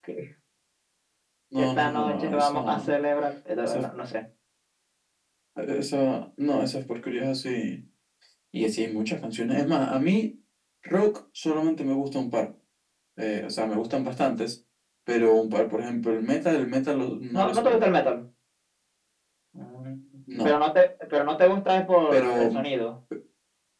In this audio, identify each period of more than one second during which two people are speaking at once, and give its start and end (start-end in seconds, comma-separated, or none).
1.6-2.9